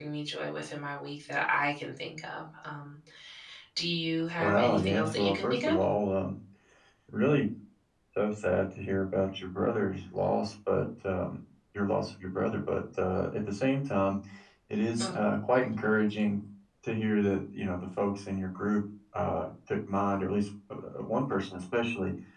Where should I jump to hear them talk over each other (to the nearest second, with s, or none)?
4 s